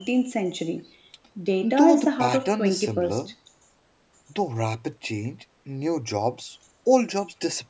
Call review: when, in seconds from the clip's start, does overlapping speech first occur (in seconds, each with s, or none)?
1.6 s